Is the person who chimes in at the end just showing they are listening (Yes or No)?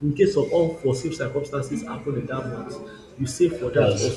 Yes